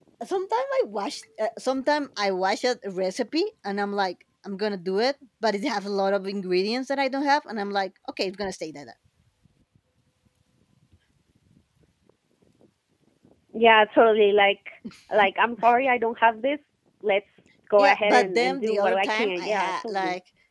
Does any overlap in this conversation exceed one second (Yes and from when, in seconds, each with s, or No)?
Yes, from 17.8 s